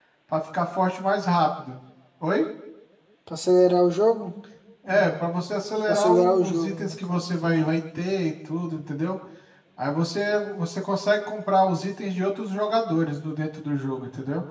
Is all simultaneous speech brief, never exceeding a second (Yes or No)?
No